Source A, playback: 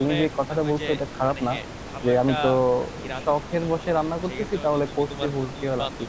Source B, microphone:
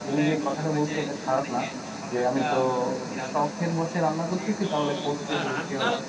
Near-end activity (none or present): present